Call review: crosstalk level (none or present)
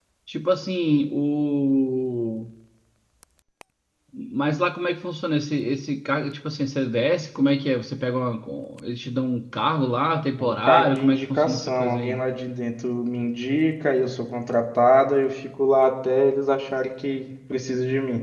present